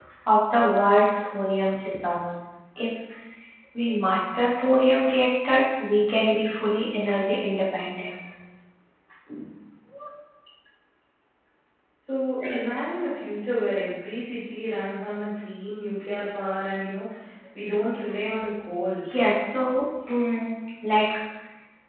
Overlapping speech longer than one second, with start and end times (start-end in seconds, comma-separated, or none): none